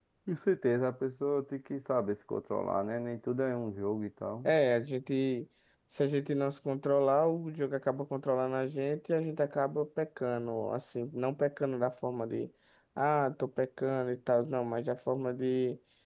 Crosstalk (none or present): none